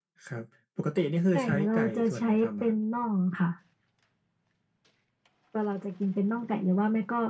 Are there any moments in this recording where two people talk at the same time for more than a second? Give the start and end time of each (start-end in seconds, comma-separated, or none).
1.3-2.7